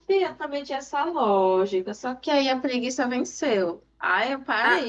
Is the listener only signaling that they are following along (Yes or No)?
Yes